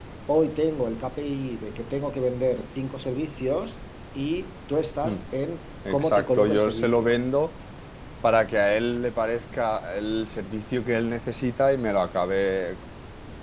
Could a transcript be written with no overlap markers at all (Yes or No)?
No